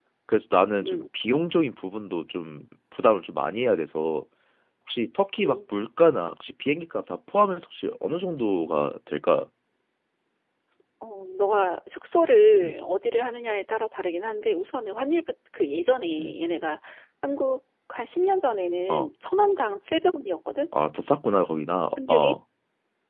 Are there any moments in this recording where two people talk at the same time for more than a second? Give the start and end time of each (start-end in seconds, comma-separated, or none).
none